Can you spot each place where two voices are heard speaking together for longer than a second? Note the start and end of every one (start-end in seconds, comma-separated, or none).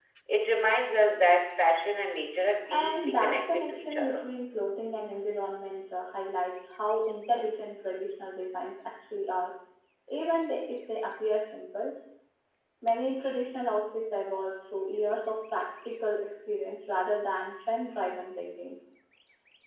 2.7-4.2